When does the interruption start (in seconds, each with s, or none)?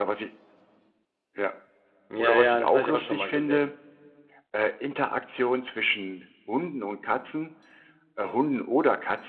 2.2 s